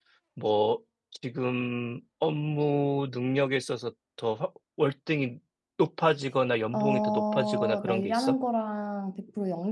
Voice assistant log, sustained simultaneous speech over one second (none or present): present